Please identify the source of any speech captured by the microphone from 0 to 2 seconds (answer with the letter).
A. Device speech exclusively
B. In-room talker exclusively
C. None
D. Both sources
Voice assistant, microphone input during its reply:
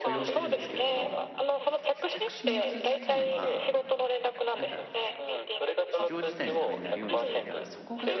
D